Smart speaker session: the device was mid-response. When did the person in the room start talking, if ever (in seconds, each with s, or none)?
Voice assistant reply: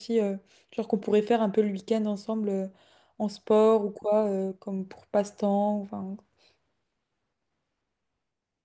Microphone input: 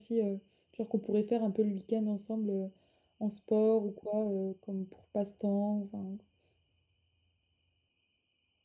none